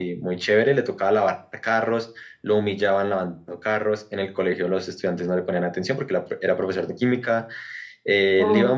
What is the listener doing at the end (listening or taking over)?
listening